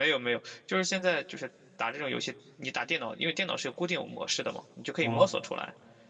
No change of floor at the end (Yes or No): Yes